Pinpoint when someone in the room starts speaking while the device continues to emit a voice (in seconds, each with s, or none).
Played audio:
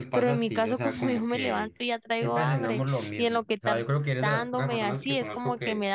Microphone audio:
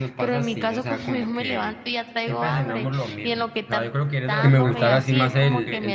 4.4 s